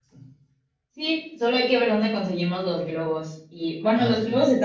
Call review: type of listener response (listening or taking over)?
listening